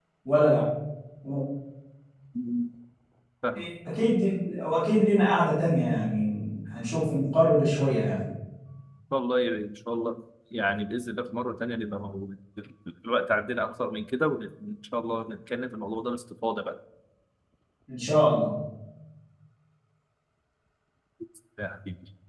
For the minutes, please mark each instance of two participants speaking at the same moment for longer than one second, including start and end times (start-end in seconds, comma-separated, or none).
none